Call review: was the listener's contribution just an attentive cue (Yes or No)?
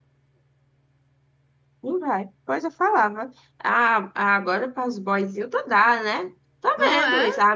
Yes